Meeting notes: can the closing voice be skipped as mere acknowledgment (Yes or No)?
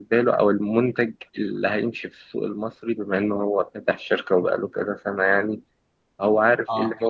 Yes